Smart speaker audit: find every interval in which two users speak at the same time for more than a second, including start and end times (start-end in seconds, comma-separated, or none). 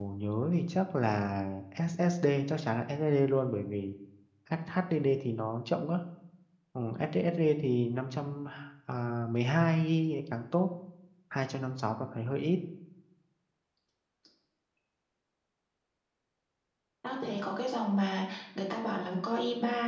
none